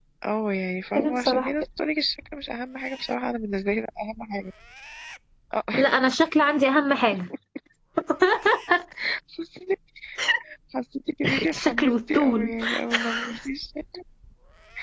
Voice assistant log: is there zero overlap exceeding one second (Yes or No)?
No